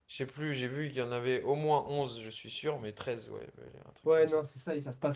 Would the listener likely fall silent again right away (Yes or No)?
No